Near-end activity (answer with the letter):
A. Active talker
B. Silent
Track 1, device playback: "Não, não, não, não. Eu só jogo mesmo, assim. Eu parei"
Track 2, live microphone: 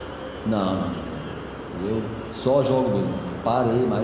B